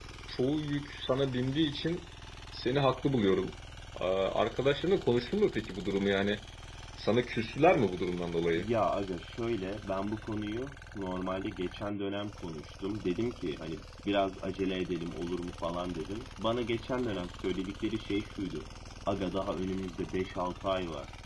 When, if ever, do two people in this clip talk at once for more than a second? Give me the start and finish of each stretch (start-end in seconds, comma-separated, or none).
none